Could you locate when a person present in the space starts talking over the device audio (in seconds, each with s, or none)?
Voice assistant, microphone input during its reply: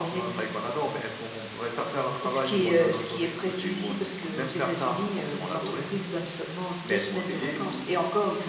none